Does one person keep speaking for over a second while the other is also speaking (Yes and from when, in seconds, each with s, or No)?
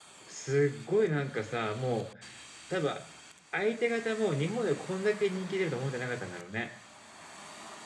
No